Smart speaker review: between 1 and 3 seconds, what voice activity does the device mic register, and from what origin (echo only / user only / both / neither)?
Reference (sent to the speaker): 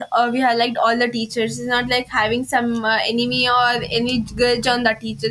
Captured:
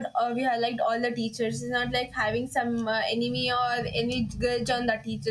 echo only